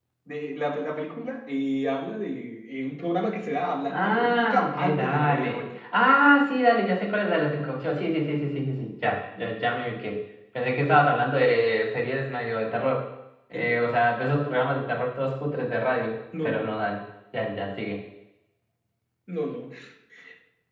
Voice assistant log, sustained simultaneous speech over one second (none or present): present